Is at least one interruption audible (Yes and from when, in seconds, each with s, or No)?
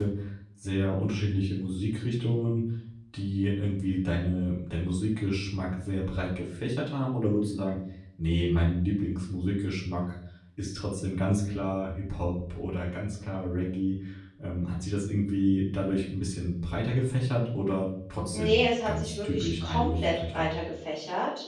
Yes, from 18.3 s